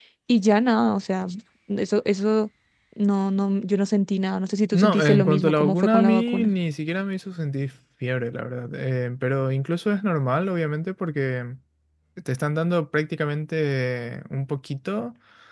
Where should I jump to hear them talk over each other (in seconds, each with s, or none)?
4.7 s